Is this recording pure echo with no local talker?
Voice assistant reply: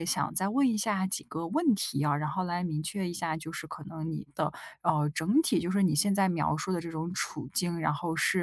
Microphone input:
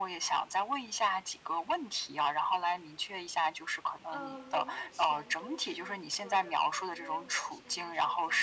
No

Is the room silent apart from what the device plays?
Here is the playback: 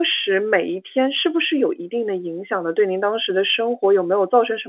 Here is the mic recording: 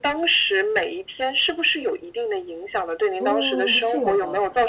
No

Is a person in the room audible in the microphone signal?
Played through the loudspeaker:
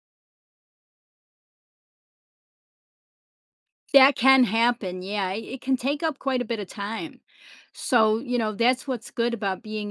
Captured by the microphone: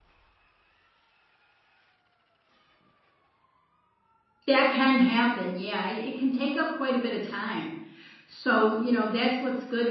No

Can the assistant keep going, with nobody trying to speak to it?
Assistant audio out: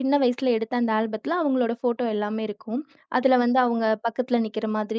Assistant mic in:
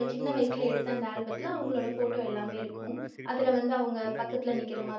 No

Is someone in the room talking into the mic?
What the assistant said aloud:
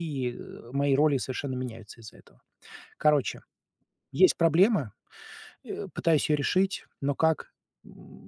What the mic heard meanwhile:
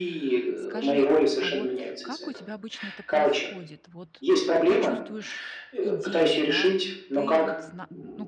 Yes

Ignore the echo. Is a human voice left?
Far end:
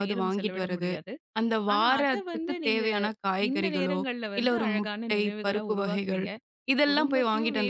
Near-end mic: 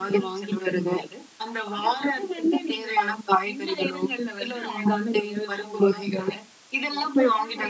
No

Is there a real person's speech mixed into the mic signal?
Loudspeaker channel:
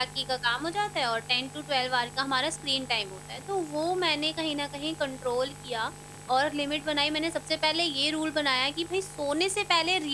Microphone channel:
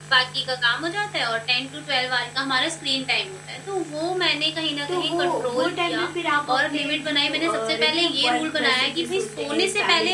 Yes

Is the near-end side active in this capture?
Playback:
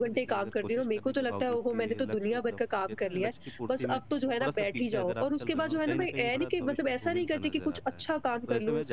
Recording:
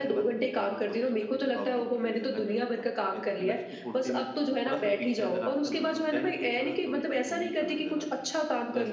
No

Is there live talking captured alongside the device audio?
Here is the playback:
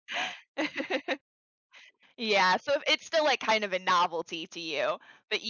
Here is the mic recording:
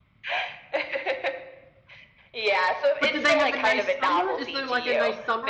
Yes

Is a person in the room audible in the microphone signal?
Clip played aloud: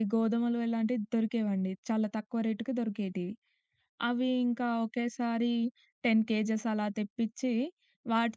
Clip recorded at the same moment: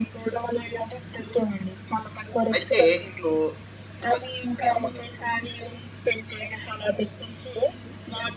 Yes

